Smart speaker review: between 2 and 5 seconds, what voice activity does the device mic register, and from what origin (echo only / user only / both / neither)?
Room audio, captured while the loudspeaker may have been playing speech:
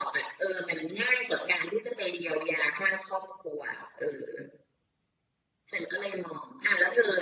echo only